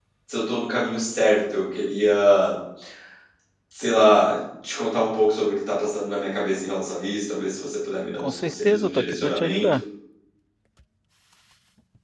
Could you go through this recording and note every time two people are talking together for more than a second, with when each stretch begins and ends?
8.2-9.8

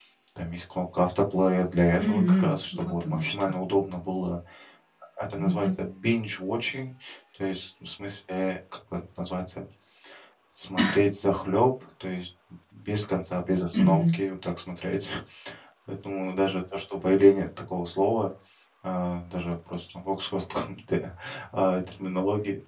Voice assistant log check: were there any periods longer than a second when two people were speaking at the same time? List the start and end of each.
2.0-3.5

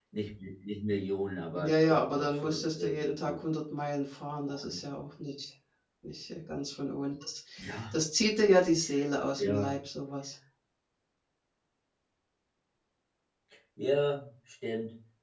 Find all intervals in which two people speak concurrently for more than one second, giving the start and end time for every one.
1.6-3.4

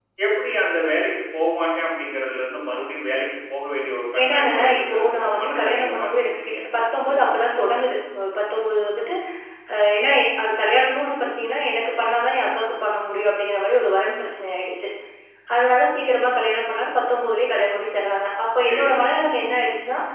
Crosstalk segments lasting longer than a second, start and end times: 4.2-6.6

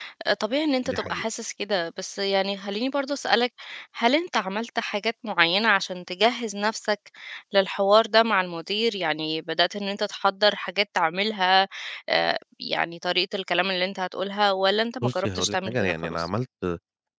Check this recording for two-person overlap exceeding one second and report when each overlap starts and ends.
15.0-16.3

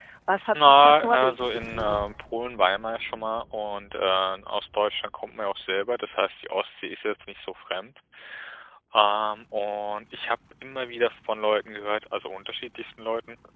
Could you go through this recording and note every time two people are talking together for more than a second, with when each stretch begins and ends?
0.6-2.0

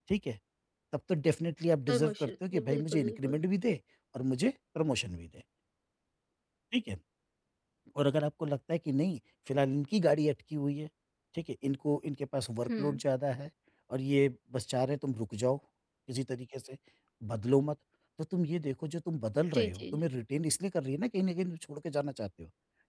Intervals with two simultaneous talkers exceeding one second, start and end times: 1.9-3.4

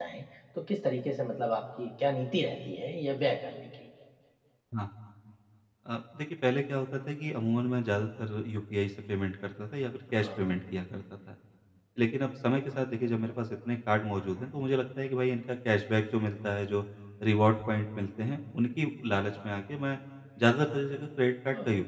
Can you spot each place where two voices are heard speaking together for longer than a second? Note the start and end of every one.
none

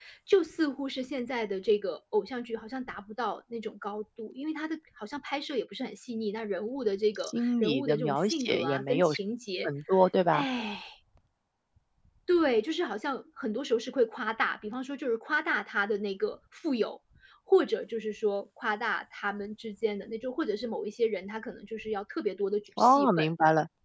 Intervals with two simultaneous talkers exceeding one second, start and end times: 7.2-9.1

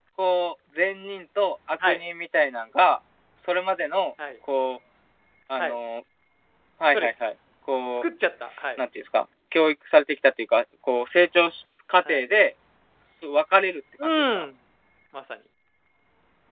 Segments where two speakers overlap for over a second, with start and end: none

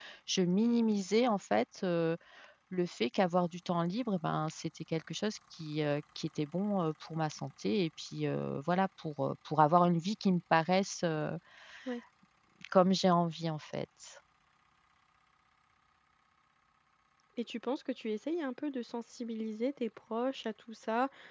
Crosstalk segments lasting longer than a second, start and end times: none

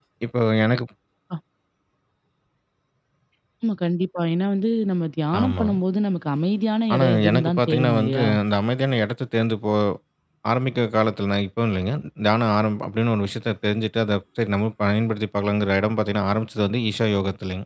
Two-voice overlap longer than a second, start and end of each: 6.9-8.3

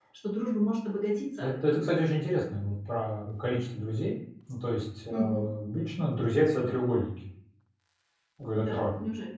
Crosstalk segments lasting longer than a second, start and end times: none

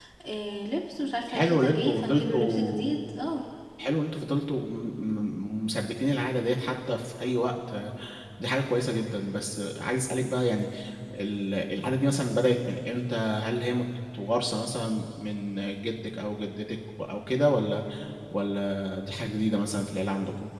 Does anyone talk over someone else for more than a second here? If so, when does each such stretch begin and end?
1.3-2.9

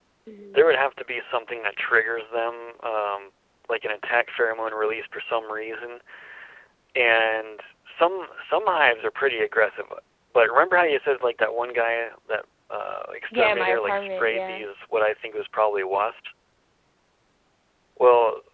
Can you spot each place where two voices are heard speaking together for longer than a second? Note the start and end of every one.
13.3-14.6

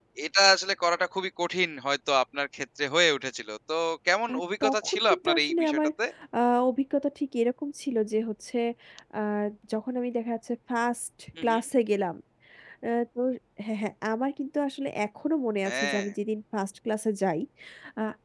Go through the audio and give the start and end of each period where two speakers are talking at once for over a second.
4.3-5.9

